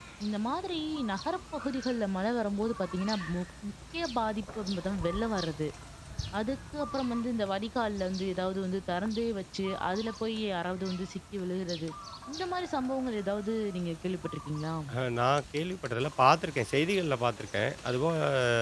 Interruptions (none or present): none